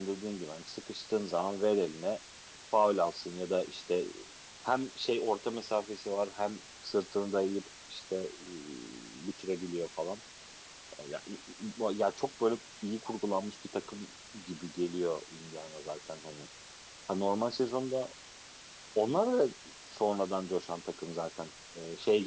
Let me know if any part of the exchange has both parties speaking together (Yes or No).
No